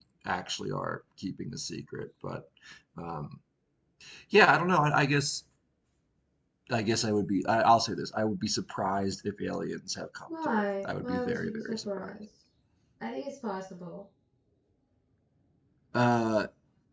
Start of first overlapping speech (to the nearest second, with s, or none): 10 s